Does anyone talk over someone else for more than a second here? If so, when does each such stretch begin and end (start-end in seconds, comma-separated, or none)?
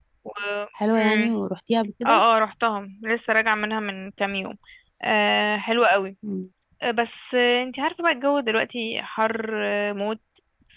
none